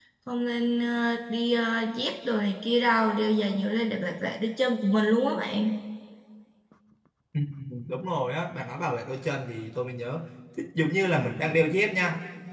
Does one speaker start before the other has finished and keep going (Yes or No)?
No